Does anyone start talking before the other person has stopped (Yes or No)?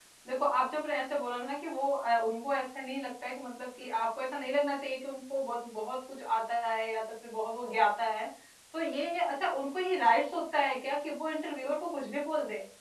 No